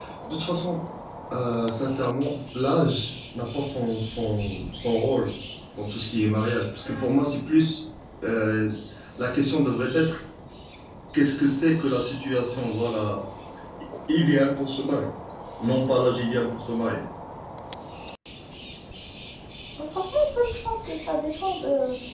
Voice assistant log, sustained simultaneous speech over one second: none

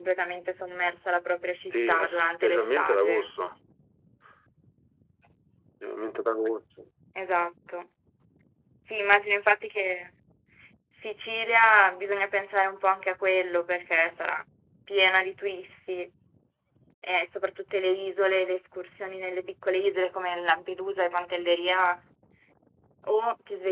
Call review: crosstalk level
present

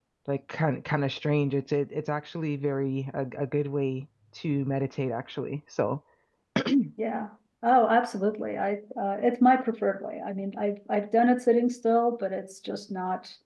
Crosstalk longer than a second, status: none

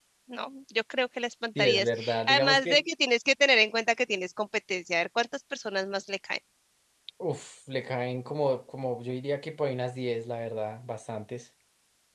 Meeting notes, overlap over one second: present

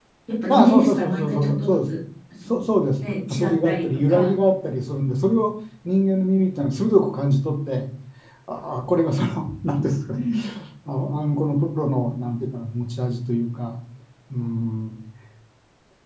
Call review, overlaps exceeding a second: present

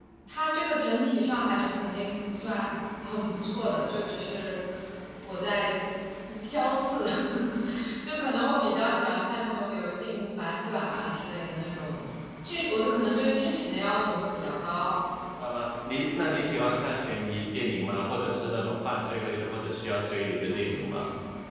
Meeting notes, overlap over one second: none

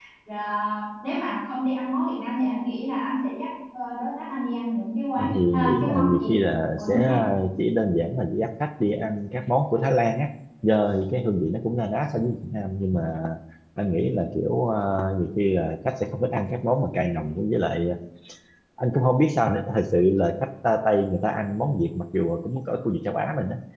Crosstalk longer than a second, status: present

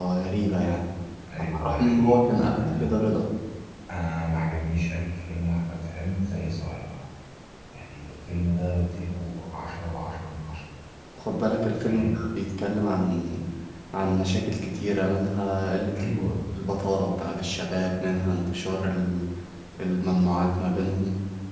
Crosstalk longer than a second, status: present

